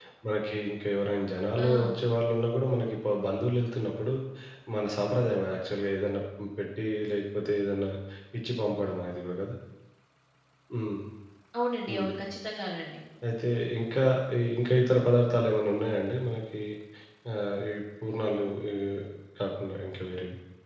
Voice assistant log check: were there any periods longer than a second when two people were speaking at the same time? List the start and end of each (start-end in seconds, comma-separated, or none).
none